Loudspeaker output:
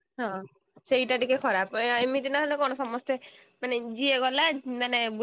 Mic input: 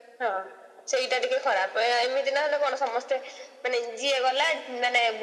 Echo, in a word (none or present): present